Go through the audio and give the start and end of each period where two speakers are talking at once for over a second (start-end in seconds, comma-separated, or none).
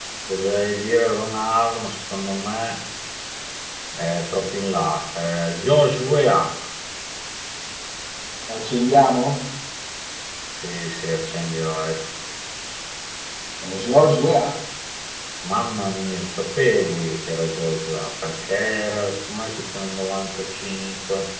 none